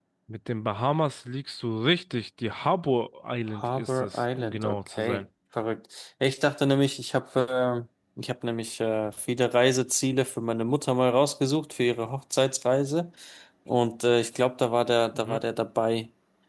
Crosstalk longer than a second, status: present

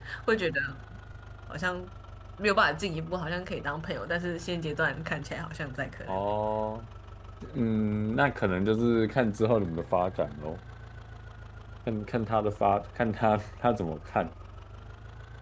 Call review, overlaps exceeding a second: none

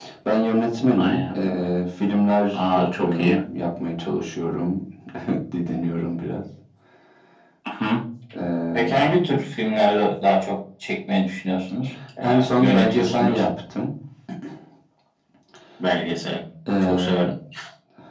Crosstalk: present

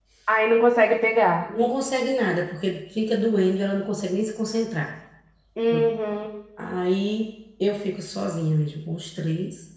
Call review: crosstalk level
none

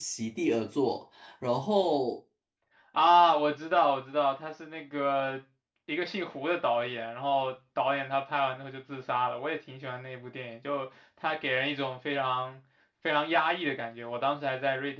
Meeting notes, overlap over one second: none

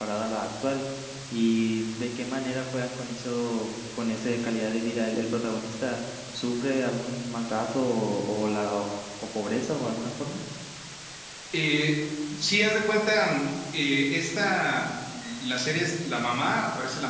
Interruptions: none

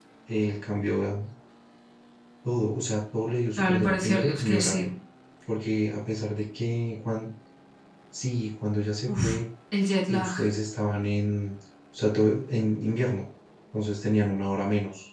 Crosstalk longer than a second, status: present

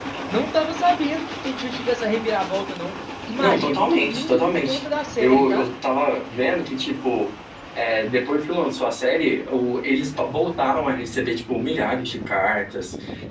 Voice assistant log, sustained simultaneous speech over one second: present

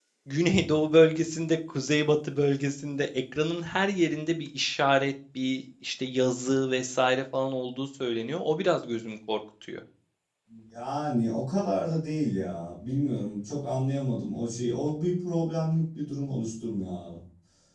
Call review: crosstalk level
none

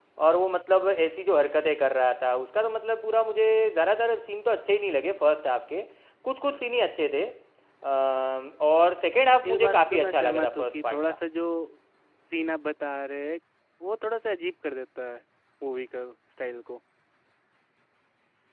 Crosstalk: present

